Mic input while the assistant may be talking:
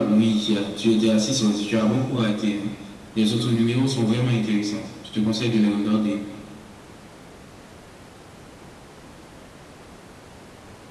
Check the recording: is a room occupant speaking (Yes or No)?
No